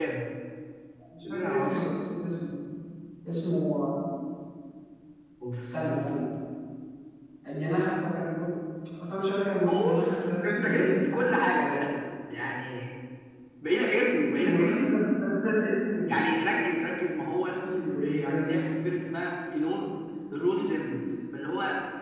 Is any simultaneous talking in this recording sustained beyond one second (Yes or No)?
Yes